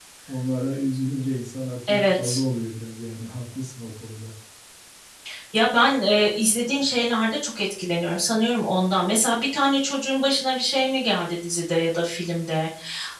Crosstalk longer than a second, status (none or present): none